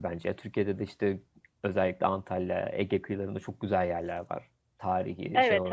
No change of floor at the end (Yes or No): No